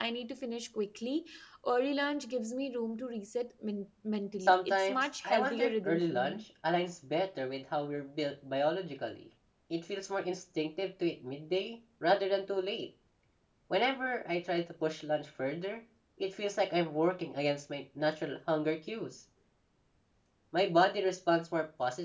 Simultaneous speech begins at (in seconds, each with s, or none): 4.4 s